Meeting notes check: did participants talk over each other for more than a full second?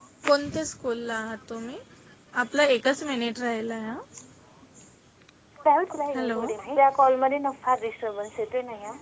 No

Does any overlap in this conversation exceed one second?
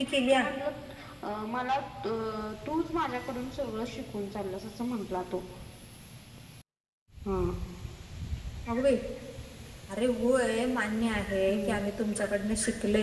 No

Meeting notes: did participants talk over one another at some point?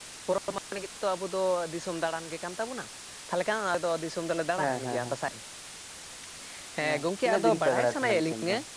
Yes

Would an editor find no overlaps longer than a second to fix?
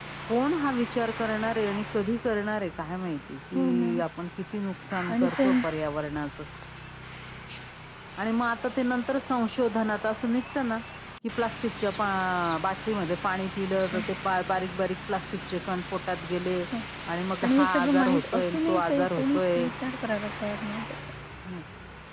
No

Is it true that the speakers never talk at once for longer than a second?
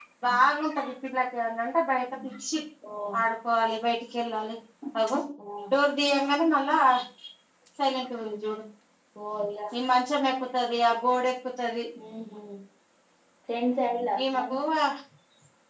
Yes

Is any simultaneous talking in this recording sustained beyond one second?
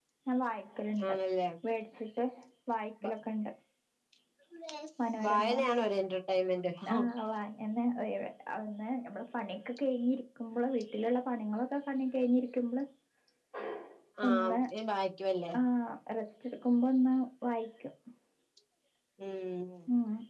No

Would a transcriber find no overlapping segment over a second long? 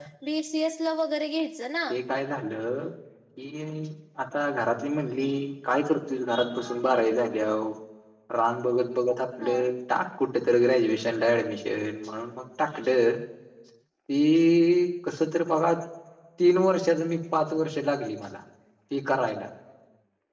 Yes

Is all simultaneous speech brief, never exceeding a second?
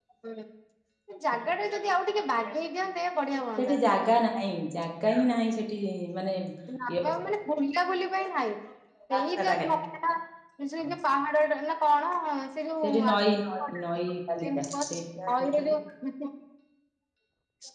Yes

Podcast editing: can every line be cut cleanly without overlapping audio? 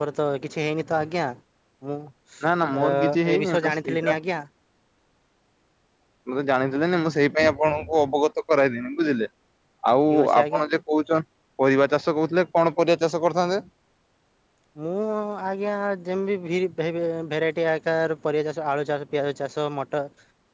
No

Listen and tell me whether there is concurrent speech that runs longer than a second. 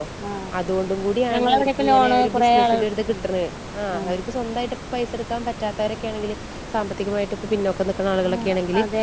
Yes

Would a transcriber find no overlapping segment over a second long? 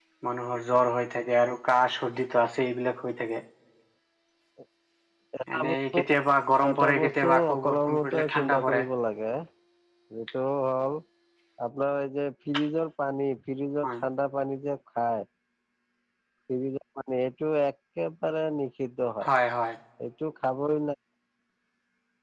No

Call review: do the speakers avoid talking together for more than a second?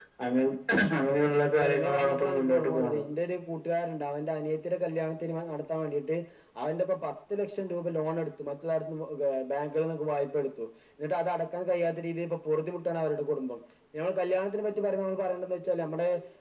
No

